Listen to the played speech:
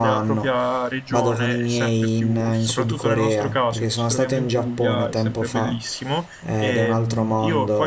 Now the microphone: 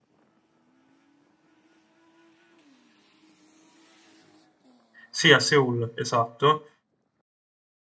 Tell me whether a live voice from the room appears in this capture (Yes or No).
Yes